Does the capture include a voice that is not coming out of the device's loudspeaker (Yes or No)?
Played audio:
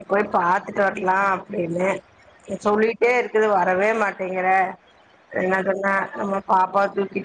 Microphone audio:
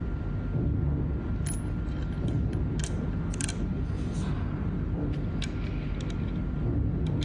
No